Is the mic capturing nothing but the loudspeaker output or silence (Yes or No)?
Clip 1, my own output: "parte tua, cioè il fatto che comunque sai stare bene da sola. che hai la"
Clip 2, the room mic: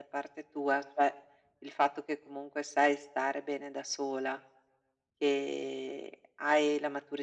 Yes